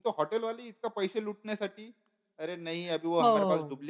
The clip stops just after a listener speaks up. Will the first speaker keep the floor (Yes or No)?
Yes